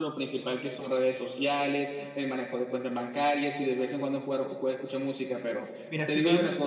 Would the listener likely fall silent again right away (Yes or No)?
No